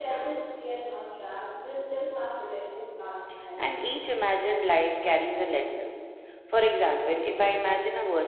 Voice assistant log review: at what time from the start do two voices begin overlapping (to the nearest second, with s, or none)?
none